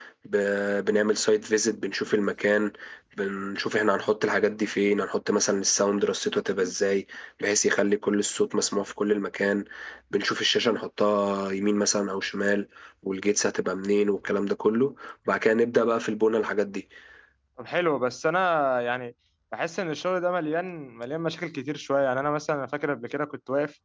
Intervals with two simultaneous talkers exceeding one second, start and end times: none

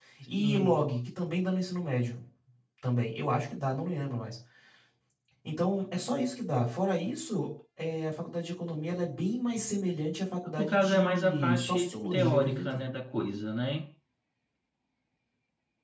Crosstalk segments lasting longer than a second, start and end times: 10.6-12.8

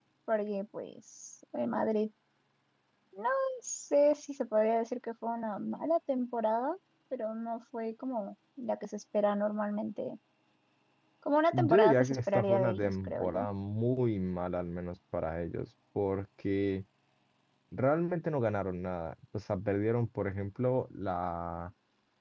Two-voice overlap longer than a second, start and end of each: 11.5-13.5

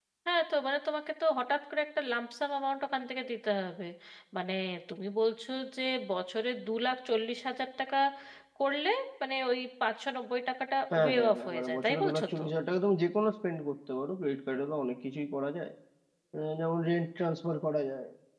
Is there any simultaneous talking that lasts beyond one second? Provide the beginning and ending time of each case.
10.9-12.4

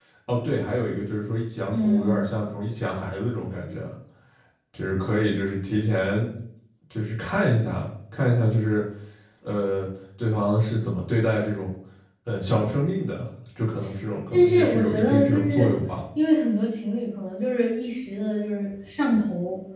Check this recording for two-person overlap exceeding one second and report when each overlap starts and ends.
14.3-15.7

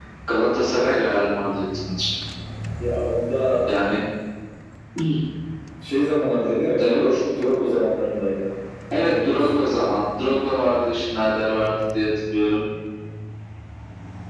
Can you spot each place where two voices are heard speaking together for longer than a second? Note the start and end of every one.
none

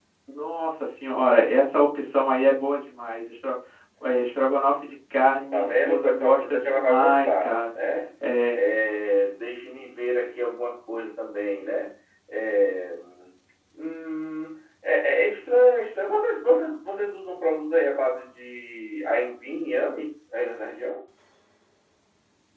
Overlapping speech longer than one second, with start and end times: 5.5-7.5

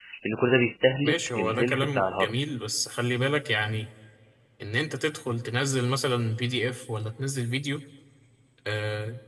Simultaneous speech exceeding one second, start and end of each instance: 1.0-2.3

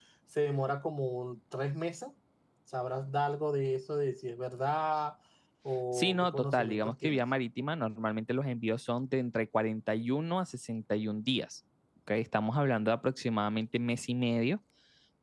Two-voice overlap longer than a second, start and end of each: 5.9-7.2

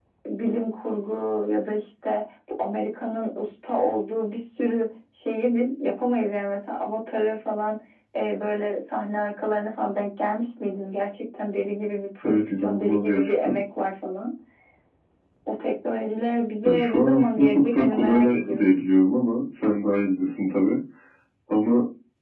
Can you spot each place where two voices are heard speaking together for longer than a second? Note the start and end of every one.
12.2-13.6, 16.6-18.8

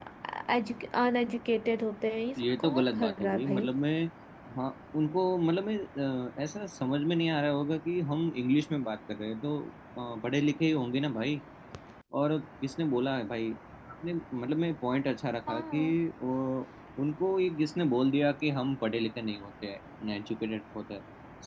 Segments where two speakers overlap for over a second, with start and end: 2.4-3.6

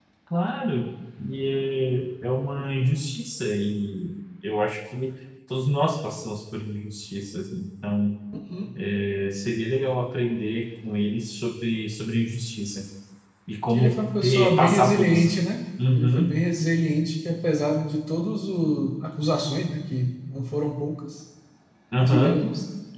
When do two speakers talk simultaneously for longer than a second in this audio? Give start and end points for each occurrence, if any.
13.7-15.3

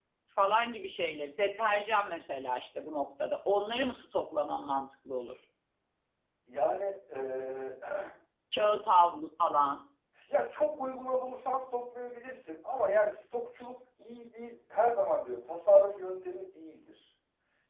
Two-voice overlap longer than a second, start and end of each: none

